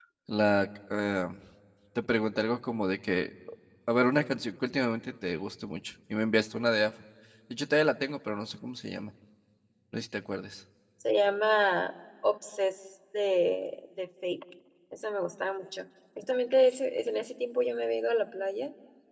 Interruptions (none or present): none